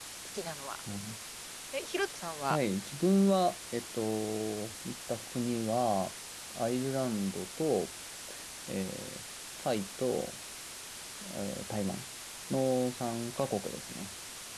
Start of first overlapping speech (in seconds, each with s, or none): none